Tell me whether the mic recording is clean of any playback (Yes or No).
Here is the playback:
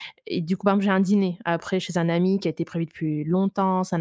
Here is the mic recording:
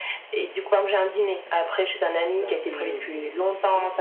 No